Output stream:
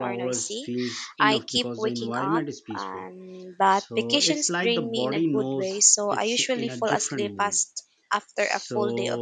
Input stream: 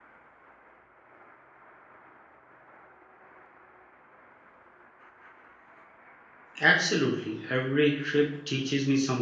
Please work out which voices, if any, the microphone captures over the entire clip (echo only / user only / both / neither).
user only